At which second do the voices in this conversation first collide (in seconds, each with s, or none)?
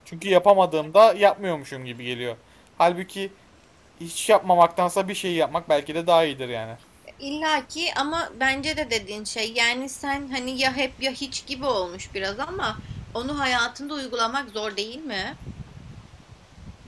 none